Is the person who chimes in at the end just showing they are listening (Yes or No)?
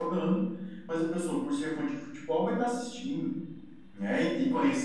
Yes